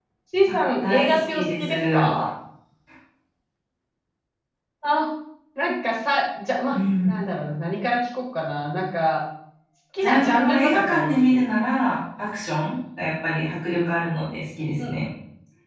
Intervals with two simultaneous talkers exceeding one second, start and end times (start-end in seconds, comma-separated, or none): 0.8-2.1, 10.0-11.2